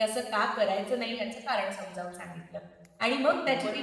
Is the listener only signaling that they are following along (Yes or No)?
Yes